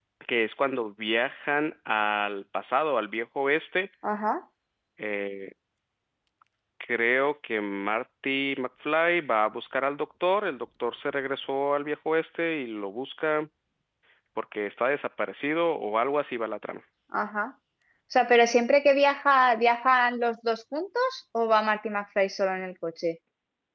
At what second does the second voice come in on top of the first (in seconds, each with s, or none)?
none